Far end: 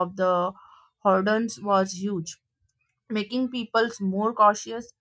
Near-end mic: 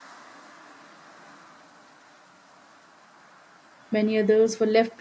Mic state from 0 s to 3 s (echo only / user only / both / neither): neither